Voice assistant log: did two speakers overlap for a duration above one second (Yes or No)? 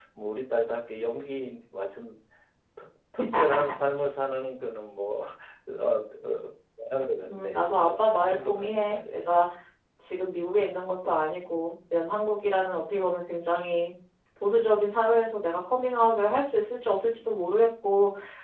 Yes